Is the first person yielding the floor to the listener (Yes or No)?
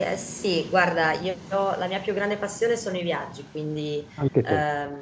No